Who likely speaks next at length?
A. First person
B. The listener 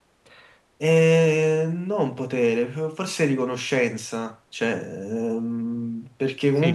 B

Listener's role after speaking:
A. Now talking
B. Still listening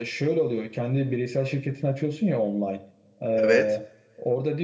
B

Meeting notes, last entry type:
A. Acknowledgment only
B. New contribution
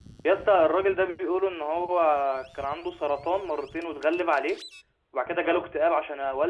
A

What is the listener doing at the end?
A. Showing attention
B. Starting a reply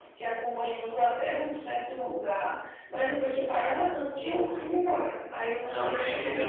B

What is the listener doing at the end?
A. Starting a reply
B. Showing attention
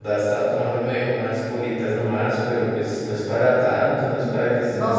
A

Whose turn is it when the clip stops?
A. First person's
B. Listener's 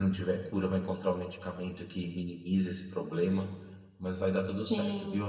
B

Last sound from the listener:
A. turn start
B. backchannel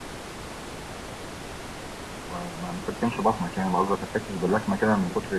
A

